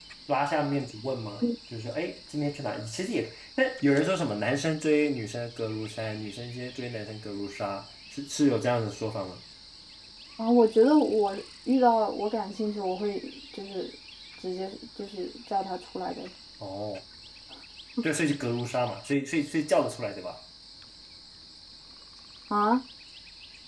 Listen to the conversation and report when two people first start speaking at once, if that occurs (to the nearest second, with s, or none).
none